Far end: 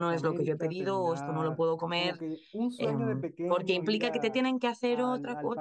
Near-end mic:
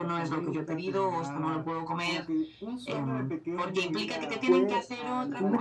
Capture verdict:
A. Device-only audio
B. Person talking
B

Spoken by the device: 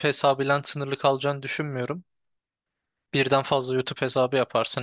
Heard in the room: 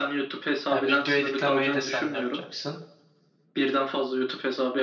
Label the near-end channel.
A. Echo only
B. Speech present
B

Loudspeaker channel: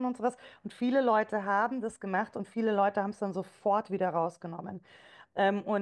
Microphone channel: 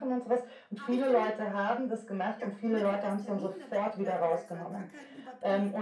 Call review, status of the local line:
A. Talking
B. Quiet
A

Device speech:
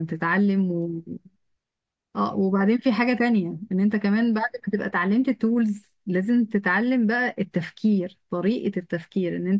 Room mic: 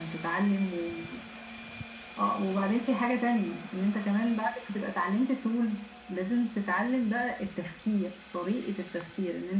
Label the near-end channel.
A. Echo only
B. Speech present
A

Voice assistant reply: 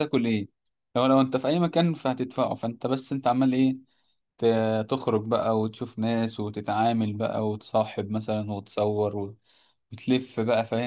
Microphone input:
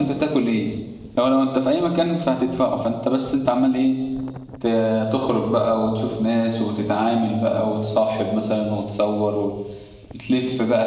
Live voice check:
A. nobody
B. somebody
A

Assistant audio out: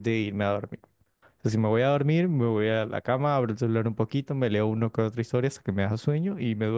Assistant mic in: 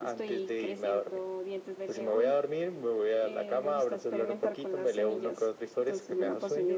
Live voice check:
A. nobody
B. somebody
B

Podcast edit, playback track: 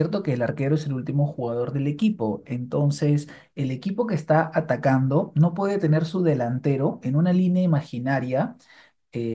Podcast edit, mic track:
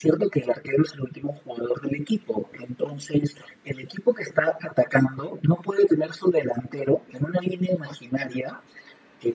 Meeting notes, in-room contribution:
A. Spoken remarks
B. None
B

